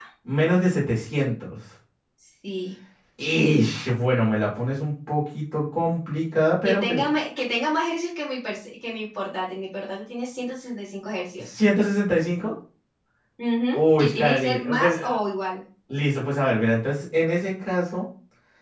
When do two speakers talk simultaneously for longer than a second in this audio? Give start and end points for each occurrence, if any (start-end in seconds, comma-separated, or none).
13.7-15.2